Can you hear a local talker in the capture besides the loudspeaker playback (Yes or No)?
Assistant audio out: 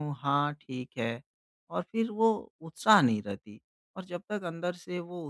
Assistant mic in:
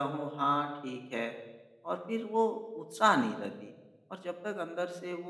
No